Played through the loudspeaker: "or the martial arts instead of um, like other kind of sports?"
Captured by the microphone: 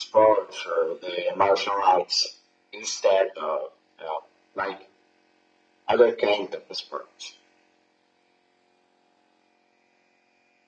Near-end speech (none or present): none